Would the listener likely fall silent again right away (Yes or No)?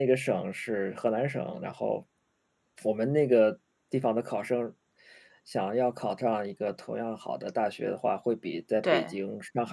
Yes